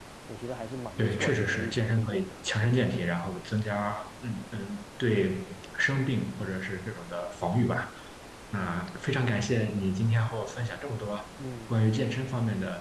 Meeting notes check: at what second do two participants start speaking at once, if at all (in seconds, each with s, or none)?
1.0 s